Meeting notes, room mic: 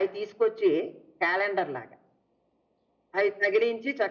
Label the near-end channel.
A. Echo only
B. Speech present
A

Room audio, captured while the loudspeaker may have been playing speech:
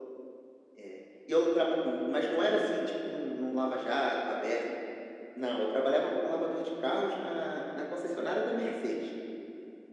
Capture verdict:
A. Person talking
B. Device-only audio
B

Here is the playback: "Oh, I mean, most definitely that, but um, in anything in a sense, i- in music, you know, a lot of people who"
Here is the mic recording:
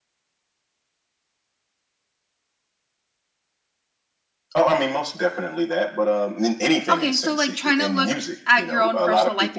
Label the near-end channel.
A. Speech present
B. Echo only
A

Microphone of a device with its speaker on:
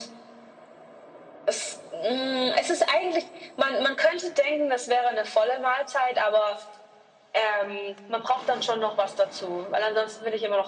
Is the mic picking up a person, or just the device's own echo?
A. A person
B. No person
B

